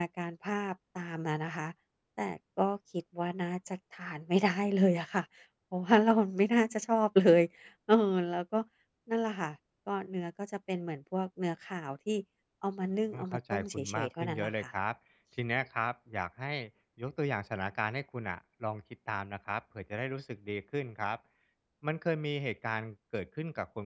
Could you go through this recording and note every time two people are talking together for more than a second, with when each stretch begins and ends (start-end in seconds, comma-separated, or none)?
13.1-14.6